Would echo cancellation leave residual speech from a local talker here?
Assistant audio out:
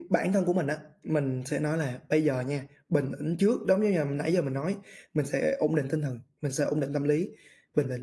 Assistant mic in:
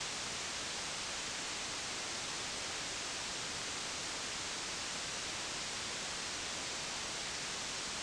No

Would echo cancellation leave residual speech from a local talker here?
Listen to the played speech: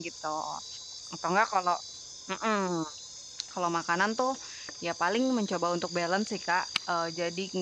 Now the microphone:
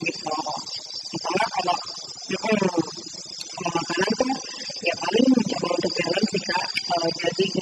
No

